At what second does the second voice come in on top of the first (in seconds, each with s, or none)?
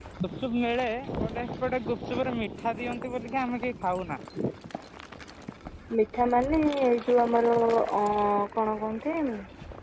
none